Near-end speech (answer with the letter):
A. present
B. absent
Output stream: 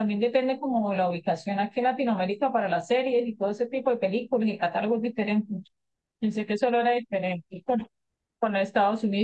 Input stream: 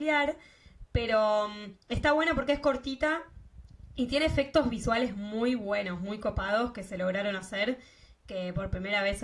A